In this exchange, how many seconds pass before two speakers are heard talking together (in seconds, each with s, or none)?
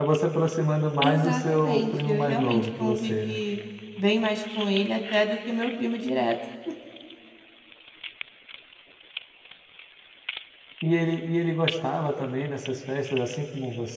1.0 s